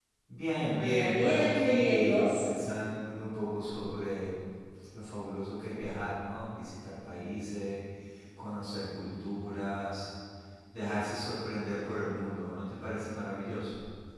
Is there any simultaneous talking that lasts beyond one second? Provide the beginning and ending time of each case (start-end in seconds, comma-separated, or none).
0.7-2.4